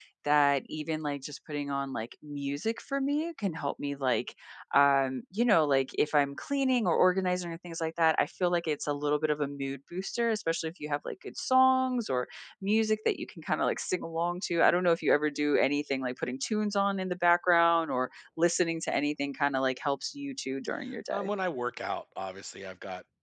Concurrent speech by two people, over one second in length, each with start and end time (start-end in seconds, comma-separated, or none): none